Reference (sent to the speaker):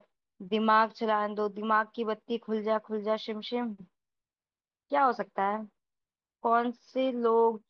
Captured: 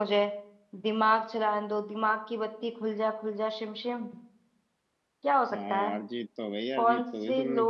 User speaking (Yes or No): Yes